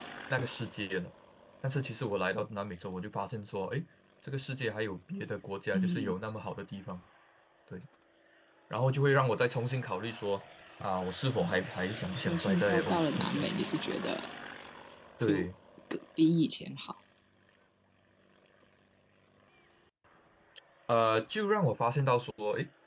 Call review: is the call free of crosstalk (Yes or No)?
No